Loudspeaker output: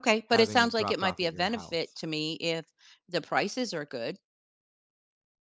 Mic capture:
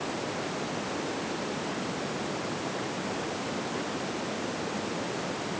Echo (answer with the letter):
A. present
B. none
B